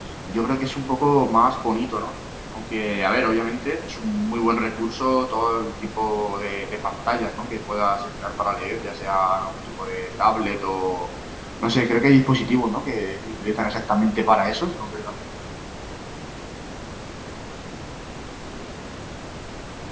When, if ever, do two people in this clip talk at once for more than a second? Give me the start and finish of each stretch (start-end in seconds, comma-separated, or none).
none